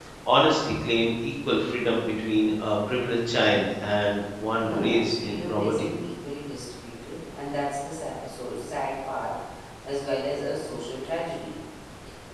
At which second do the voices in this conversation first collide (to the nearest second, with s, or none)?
5 s